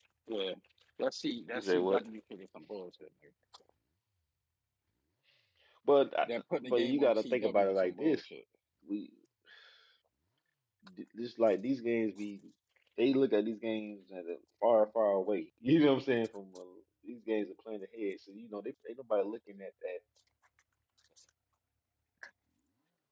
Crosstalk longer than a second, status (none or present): present